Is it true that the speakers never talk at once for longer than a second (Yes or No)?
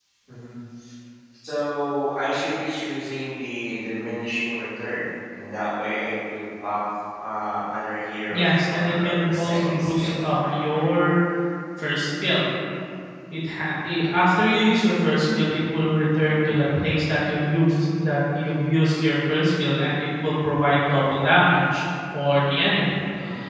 No